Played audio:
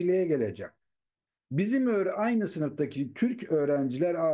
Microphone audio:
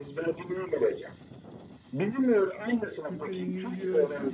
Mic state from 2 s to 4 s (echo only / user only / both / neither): both